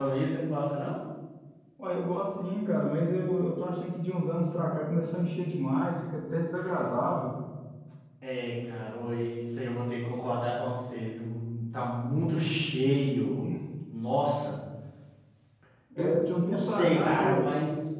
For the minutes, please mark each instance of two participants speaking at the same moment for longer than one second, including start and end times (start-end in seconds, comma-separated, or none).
16.0-17.4